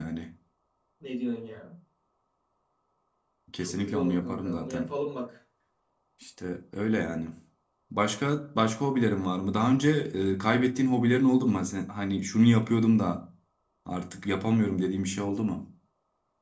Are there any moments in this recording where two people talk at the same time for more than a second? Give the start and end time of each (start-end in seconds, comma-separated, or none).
3.6-4.9